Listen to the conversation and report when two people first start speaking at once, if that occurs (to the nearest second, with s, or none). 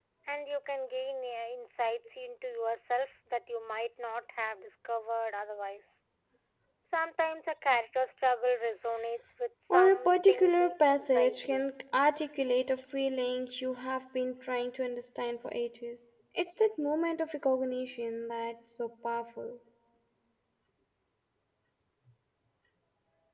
10 s